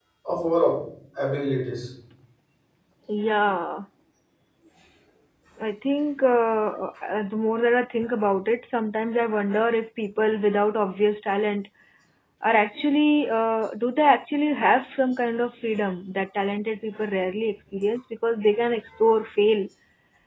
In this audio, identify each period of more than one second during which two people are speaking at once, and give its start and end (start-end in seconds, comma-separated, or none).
none